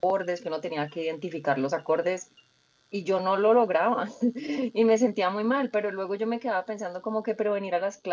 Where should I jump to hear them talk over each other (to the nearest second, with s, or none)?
none